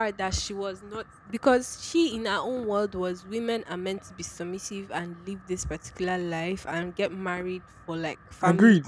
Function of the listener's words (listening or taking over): taking over